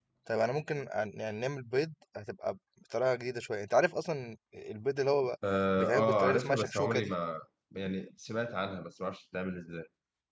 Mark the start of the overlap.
5.8 s

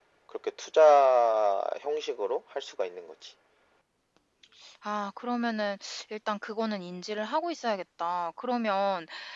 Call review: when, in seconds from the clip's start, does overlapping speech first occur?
none

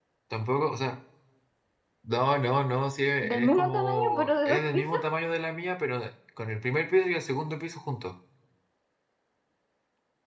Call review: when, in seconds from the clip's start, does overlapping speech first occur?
3.2 s

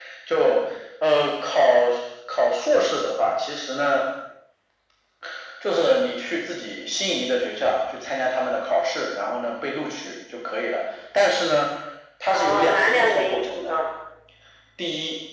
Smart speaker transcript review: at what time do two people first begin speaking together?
12.3 s

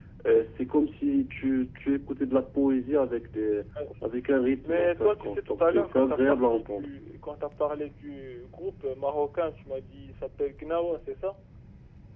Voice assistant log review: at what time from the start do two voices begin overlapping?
4.7 s

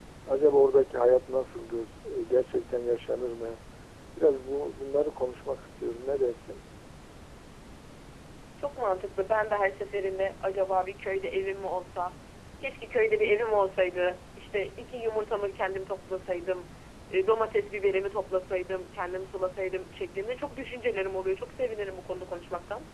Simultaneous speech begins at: none

